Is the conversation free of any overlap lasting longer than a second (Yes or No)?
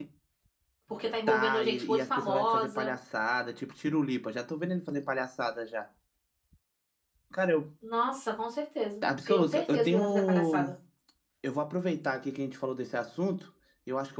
No